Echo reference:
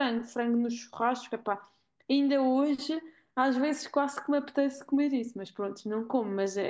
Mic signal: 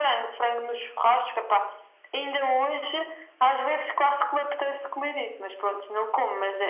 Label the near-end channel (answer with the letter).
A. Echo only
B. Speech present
A